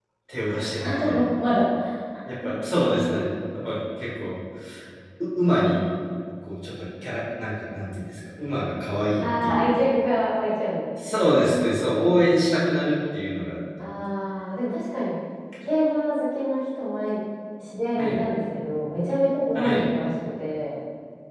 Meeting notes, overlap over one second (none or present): none